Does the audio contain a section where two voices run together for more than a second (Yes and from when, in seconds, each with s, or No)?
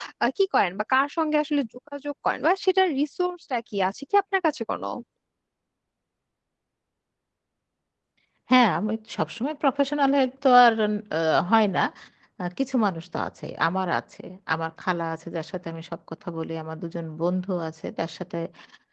No